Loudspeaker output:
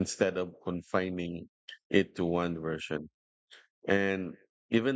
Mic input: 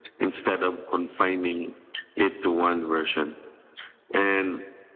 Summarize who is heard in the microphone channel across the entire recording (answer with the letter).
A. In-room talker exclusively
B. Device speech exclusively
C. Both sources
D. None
B